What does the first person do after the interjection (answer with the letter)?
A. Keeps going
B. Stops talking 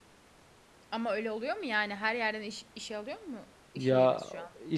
B